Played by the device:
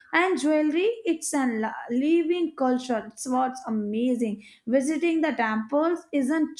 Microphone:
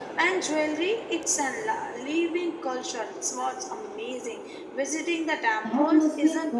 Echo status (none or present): present